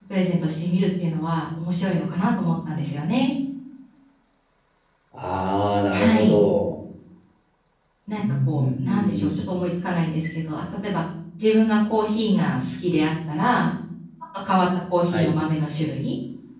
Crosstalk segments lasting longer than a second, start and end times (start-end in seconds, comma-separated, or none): 8.2-9.4